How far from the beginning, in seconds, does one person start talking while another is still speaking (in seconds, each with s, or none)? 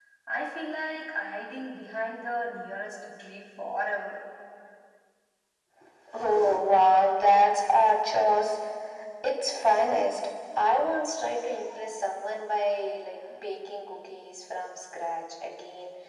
none